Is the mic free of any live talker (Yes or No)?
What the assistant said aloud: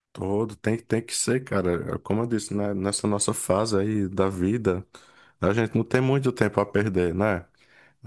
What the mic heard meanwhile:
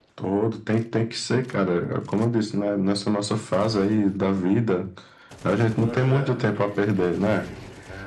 No